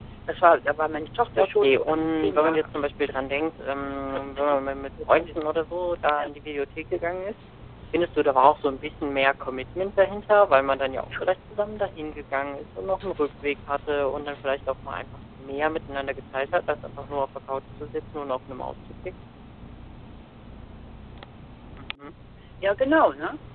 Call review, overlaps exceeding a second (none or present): present